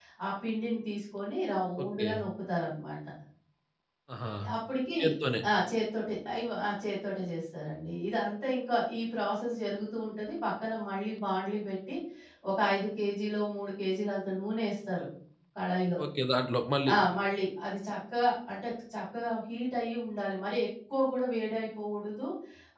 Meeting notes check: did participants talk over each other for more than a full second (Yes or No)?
No